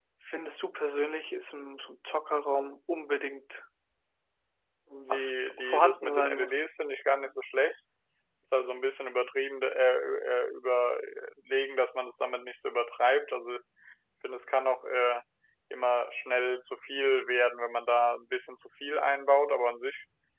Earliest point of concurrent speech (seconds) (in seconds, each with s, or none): 5.1 s